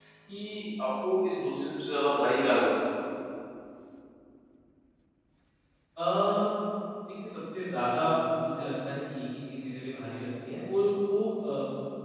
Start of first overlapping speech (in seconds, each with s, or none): none